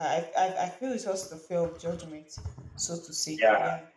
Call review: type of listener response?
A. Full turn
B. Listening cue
A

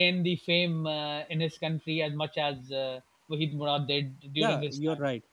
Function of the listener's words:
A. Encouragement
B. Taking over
B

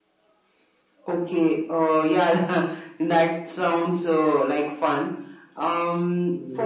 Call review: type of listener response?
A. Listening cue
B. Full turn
A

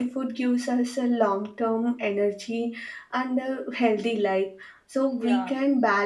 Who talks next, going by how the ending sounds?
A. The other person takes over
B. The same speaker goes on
B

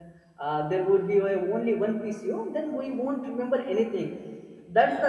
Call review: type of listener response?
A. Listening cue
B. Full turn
A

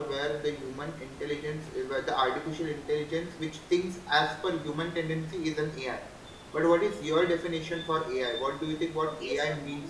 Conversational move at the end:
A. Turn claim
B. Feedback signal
A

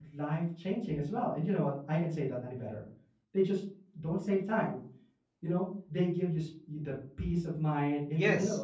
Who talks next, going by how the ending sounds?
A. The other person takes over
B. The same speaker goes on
A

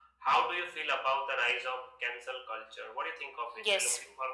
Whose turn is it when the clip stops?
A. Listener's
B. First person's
A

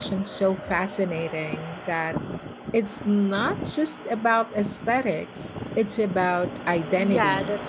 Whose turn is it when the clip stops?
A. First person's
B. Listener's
B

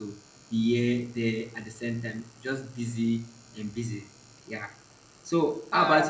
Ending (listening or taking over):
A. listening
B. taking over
A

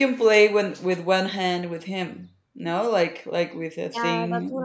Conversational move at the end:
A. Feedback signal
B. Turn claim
B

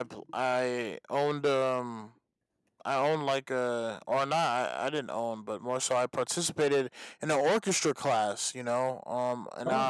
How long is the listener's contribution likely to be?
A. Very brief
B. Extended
A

